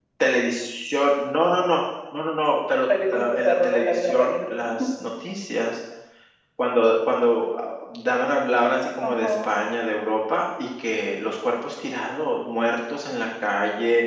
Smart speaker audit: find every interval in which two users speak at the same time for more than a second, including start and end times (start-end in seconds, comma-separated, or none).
3.1-4.5